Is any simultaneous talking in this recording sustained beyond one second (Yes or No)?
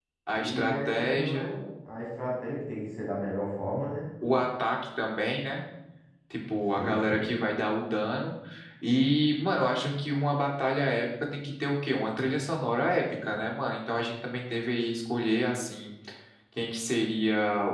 Yes